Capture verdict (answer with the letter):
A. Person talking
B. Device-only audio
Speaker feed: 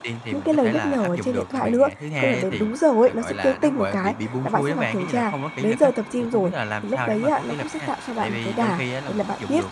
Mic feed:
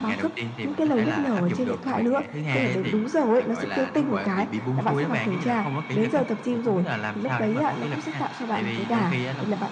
B